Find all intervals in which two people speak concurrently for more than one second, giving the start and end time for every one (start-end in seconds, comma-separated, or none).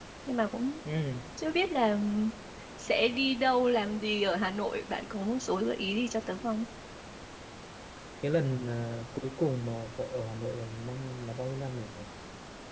none